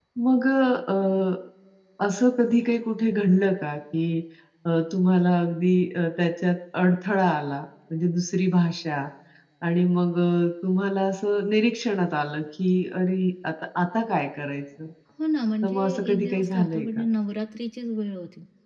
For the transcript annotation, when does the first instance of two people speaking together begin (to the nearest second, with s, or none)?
16 s